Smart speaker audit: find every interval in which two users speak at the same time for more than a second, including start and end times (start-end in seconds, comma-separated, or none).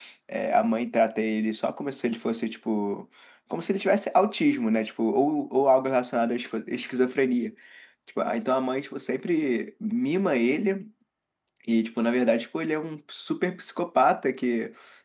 none